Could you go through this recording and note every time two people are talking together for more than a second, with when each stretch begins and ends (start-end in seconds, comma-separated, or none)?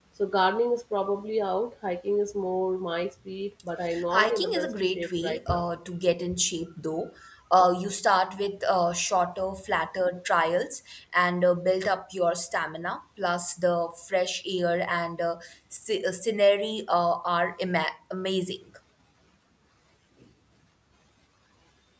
4.1-5.7